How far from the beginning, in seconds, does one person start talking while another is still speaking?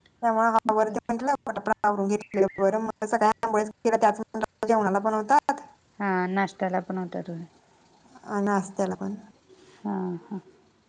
none

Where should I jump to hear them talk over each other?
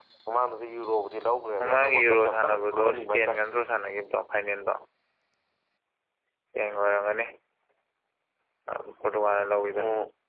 1.6 s

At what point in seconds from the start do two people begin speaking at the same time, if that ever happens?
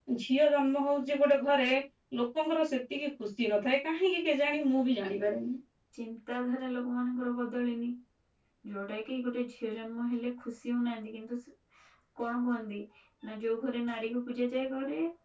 none

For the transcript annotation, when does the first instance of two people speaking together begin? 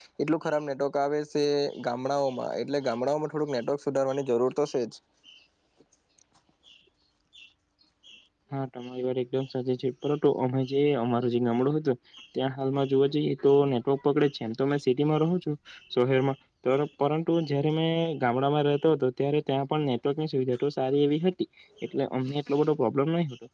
none

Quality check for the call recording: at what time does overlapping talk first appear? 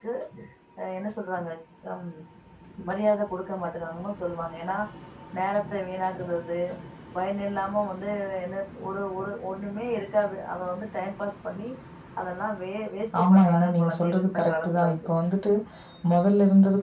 13.1 s

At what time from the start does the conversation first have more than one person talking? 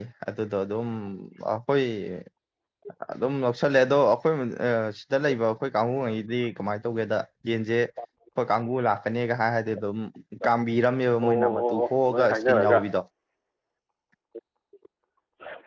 11.2 s

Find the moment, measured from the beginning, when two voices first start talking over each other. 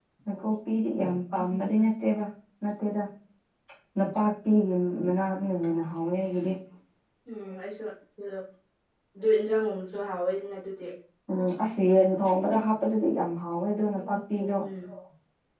none

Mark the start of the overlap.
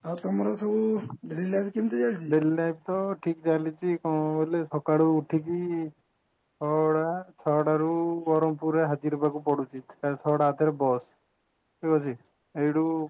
none

